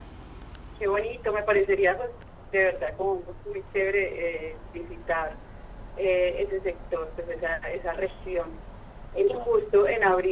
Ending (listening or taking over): listening